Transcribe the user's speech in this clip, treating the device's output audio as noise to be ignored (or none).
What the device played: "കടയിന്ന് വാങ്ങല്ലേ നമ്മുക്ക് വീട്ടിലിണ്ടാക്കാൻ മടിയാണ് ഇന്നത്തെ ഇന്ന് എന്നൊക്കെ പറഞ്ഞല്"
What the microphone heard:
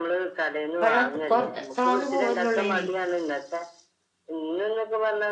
വെള്ളം കൊർഞ താന്നു പോവല്ലോള്ളൈനി